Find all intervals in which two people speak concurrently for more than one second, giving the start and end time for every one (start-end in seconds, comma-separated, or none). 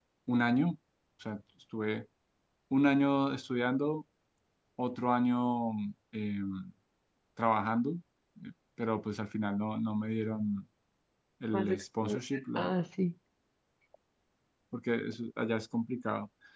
11.5-12.7